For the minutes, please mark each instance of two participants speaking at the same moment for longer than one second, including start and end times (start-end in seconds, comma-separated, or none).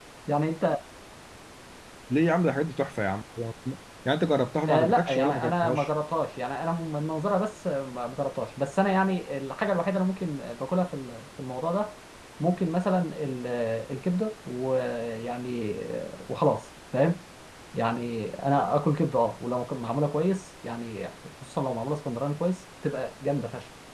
4.7-5.9